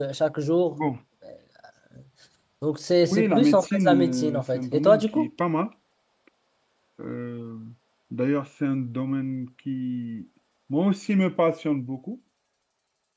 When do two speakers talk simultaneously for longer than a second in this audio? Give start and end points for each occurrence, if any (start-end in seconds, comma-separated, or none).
3.0-5.3